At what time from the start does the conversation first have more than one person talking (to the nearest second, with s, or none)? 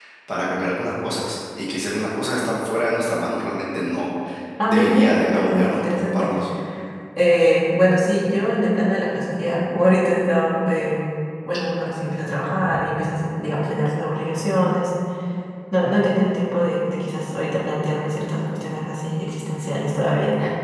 5 s